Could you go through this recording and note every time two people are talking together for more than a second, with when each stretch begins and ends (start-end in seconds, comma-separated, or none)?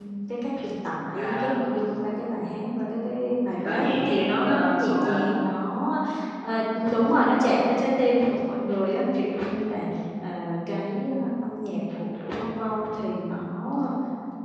3.6-5.4